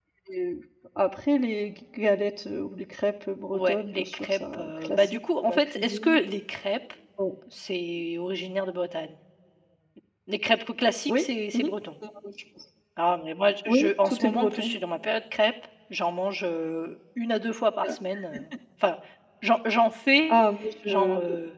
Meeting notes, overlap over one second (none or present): present